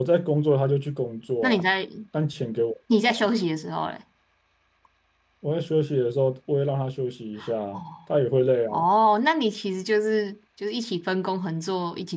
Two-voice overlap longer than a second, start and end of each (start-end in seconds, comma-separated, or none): none